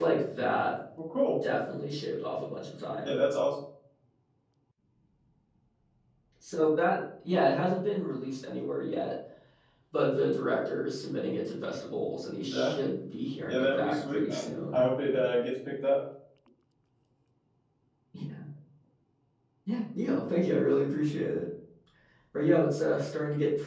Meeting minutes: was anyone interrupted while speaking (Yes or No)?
Yes